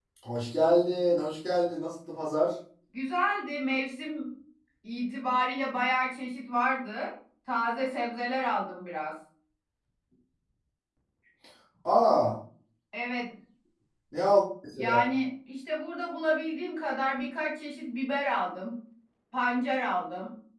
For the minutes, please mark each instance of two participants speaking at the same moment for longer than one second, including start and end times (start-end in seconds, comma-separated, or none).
none